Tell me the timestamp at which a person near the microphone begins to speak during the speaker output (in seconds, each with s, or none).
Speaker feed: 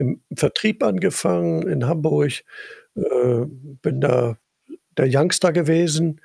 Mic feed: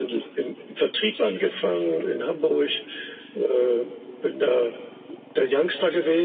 none